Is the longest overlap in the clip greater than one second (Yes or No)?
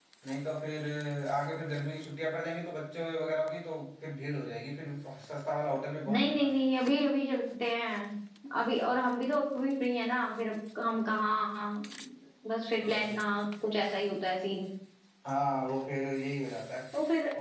No